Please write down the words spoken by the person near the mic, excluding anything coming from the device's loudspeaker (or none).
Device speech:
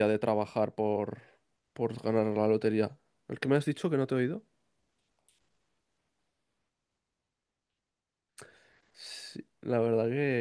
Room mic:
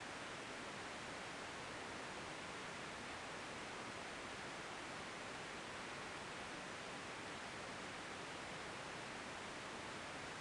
none